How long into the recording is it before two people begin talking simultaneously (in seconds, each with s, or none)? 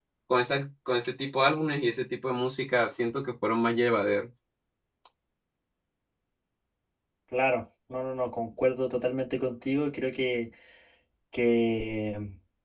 none